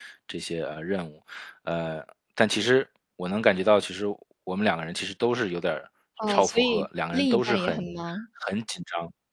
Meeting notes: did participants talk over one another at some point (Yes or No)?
Yes